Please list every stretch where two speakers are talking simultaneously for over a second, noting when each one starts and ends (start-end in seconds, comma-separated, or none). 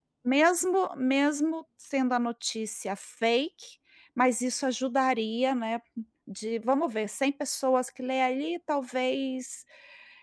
none